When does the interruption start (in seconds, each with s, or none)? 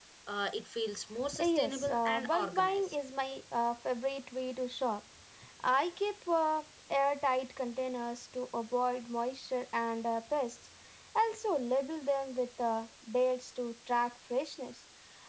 1.2 s